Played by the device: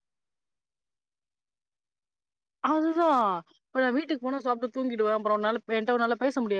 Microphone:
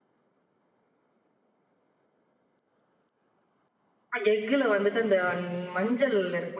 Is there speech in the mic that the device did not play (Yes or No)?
Yes